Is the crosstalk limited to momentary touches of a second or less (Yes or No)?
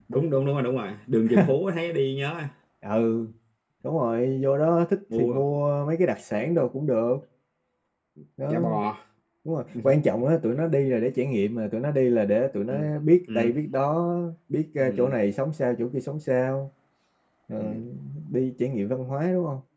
Yes